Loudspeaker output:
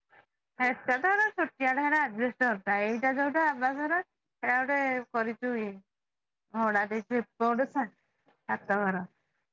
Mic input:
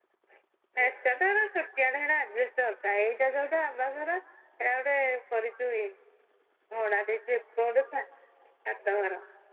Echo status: present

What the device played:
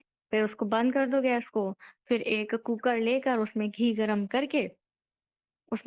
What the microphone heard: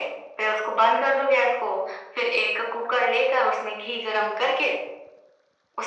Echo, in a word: present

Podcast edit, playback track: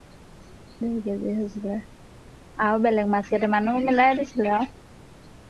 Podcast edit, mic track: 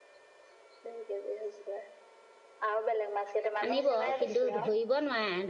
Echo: present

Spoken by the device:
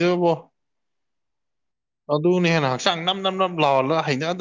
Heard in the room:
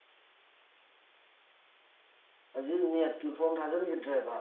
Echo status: none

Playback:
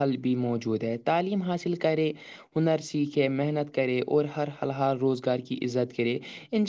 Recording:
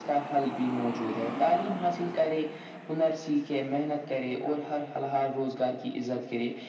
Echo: present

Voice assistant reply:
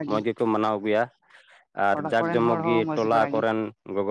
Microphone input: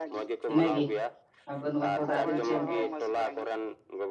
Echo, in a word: present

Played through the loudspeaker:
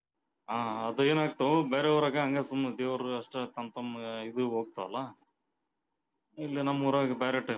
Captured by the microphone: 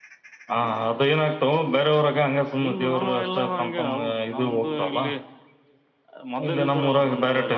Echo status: present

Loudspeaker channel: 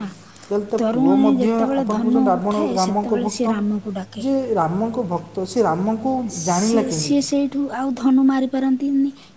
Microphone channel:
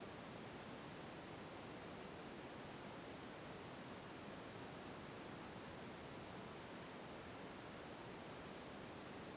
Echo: none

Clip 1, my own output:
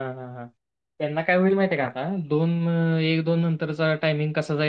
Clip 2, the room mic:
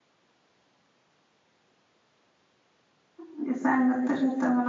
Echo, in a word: none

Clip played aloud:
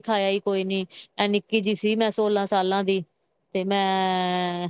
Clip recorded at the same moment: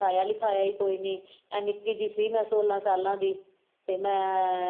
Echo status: present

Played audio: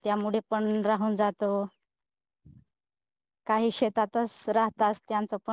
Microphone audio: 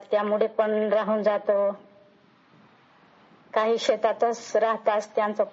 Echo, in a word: present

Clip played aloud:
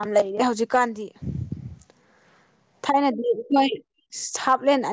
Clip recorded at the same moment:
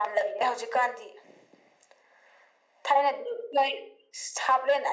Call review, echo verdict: present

